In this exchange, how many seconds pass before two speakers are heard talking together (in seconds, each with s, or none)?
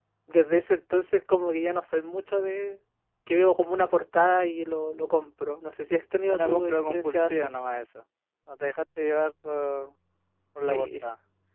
6.3 s